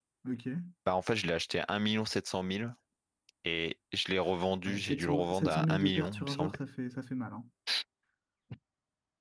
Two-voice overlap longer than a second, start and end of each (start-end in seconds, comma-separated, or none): 4.6-6.5